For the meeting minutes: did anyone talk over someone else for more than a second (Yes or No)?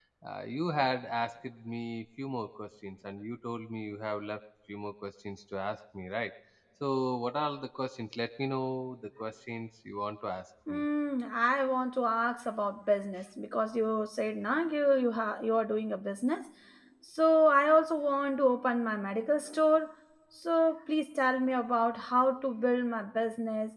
No